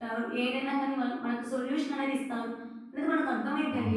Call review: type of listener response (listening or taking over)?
listening